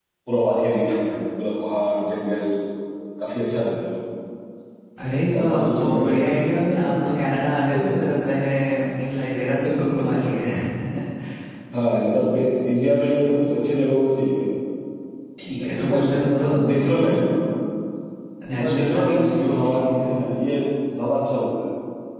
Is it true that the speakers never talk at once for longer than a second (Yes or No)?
No